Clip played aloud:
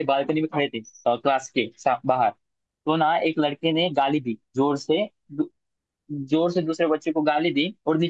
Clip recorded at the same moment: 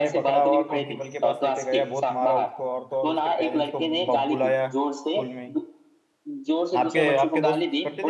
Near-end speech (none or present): present